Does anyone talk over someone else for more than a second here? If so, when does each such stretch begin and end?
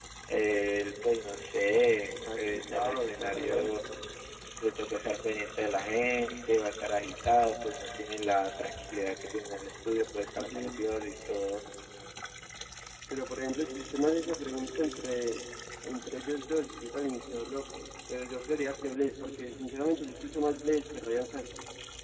2.4-3.8

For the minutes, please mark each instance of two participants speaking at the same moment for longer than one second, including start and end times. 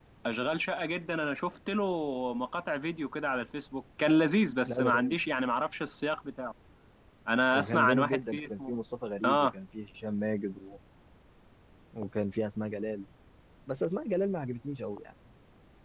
7.5-8.8

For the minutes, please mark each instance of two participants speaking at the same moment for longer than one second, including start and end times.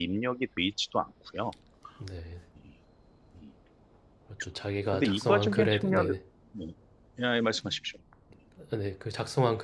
4.9-6.1

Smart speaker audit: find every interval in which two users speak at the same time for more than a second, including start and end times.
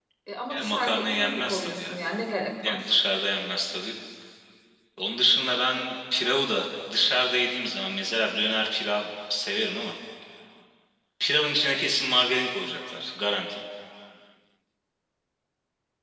0.5-2.0

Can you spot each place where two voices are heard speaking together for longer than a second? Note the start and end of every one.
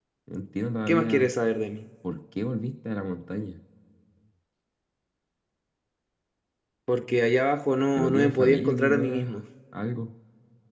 8.0-9.3

